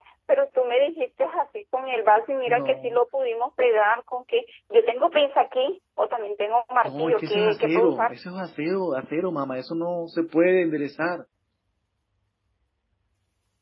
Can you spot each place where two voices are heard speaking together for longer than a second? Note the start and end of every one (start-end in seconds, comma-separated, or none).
6.8-8.1